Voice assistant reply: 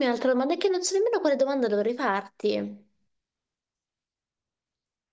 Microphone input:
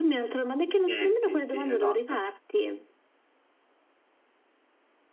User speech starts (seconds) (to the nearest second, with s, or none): 1 s